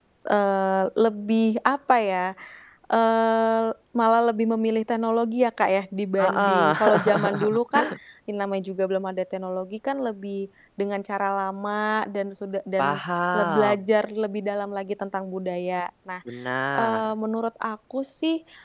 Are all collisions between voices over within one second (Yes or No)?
No